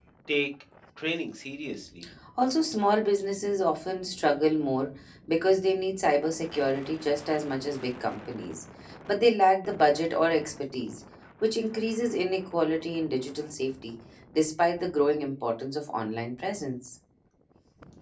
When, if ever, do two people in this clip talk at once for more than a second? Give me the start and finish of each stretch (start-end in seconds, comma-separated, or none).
none